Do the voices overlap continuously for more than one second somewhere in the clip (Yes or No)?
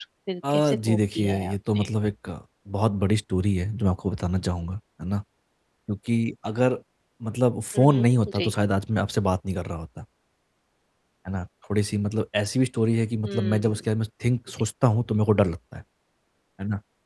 Yes